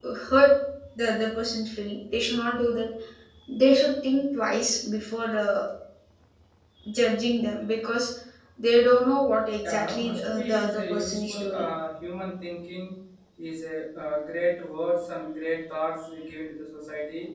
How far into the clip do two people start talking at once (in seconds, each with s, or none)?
9.6 s